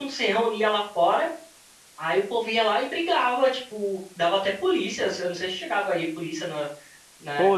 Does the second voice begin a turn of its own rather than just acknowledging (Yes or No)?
Yes